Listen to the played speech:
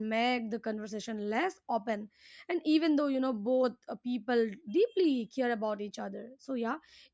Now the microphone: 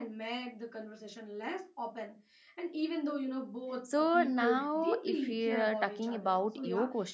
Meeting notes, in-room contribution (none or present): present